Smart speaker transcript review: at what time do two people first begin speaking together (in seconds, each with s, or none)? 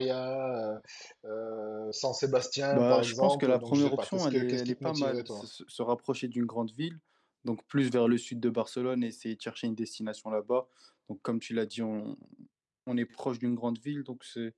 2.7 s